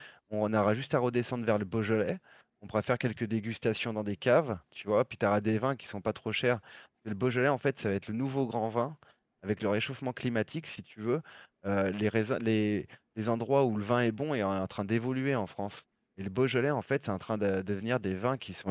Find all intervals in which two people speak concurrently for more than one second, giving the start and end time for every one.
none

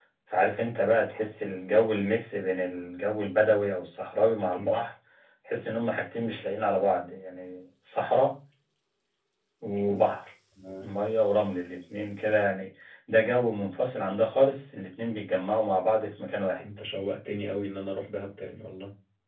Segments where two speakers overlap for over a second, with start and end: none

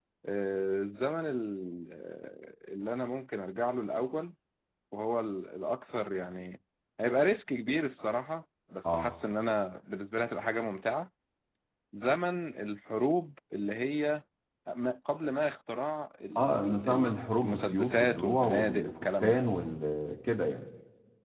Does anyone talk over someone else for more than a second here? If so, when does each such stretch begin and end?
16.4-19.4

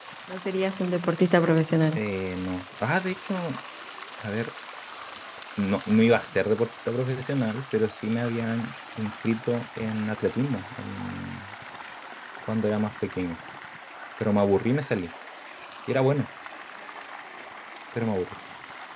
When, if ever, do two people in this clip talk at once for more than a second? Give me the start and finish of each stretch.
none

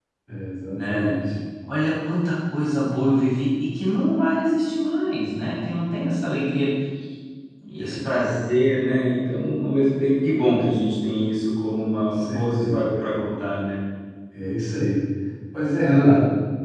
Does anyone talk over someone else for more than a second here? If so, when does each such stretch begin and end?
12.0-13.2

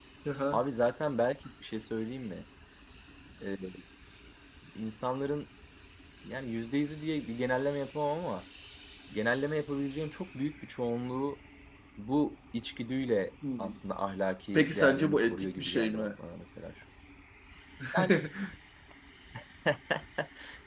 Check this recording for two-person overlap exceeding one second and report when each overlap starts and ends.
14.5-16.1

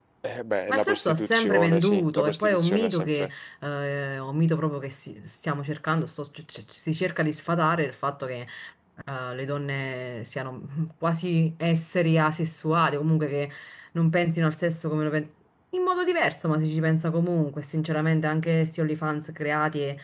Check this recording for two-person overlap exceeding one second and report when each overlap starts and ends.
0.7-3.3

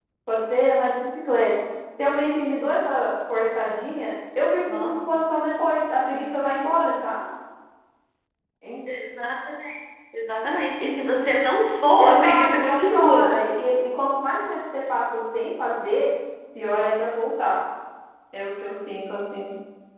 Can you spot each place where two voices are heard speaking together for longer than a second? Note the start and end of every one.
12.0-13.3

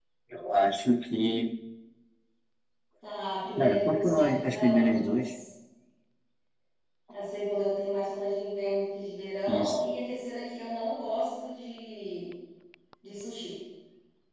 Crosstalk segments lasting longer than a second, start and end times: 3.6-5.2

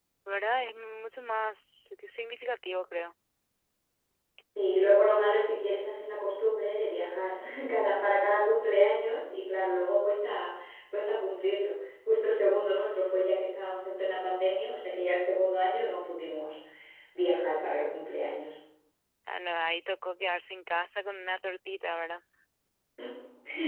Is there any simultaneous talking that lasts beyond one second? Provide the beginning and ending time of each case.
none

